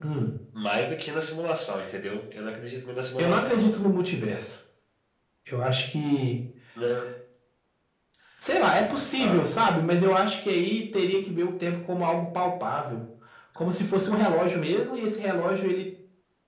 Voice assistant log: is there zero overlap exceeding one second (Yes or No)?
Yes